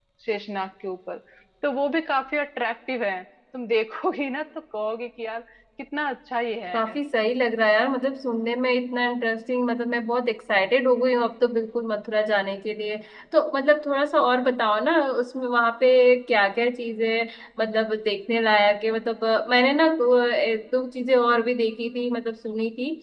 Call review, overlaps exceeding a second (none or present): none